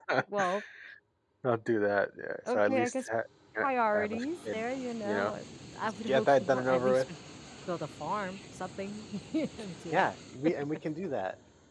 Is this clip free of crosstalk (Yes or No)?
No